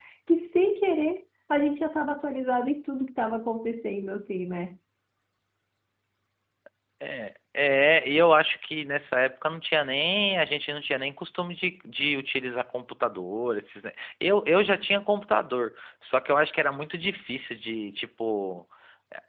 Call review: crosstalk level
none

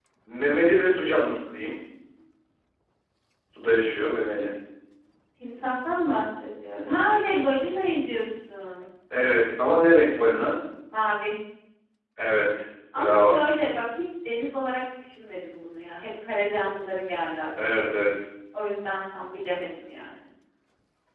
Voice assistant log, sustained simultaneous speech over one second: none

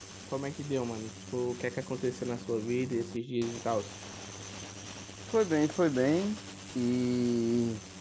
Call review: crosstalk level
none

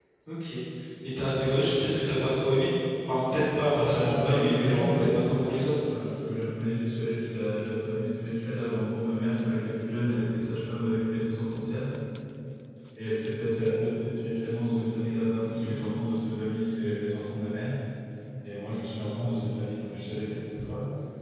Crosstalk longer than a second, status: present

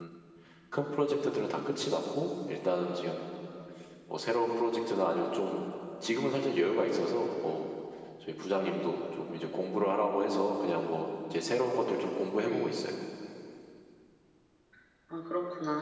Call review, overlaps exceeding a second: none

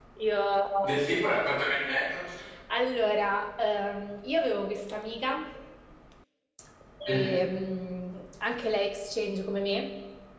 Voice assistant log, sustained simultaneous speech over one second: none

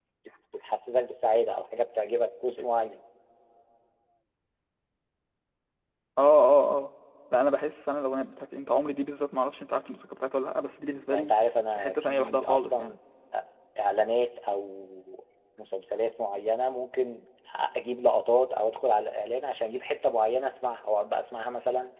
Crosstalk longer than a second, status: present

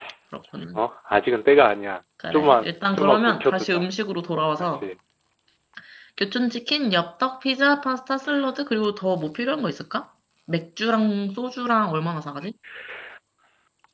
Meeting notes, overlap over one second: present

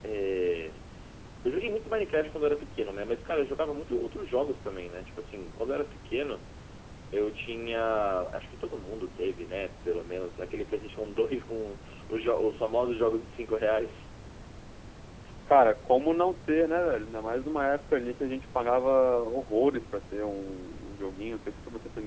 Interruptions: none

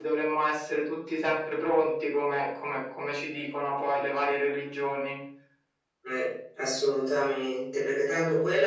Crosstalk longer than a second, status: none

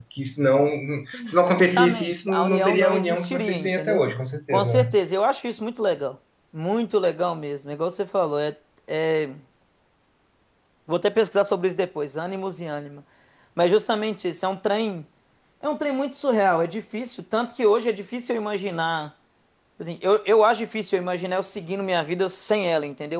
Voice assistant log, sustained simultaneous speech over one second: present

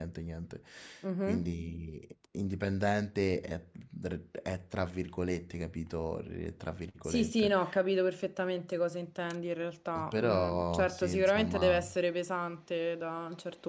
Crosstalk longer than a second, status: present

